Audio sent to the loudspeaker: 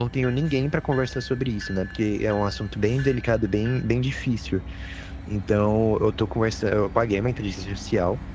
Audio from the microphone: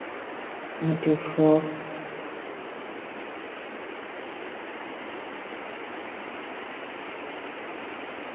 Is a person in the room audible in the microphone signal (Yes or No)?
Yes